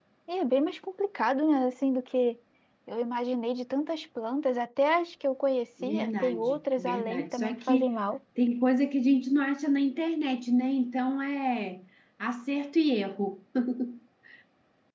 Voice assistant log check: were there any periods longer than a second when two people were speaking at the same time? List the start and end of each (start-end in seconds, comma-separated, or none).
5.8-8.0